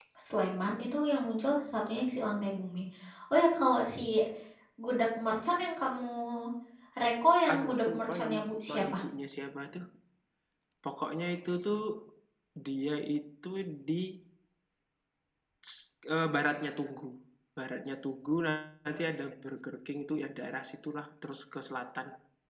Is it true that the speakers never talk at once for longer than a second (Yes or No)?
No